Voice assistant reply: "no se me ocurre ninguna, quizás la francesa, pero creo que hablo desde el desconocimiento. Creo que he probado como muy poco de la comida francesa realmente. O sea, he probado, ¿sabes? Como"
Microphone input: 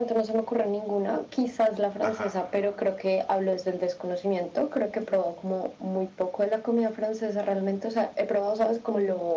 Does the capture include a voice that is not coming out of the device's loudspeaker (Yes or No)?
Yes